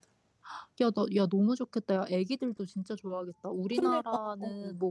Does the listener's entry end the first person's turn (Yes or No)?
No